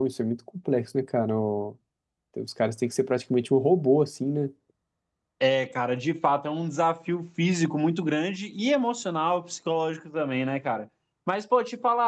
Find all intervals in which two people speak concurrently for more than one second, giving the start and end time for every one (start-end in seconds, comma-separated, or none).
none